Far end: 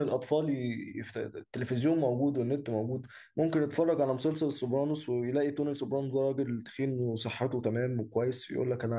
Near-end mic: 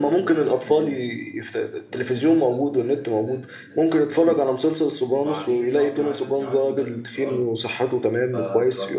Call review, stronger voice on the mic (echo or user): echo